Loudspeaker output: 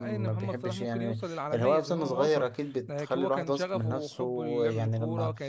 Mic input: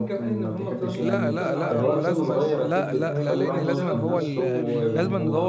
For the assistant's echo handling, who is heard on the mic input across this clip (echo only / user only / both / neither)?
both